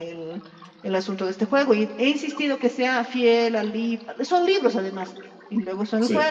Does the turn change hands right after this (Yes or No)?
No